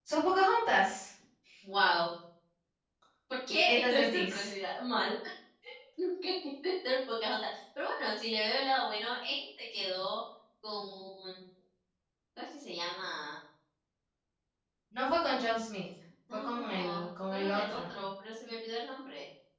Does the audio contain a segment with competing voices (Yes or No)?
Yes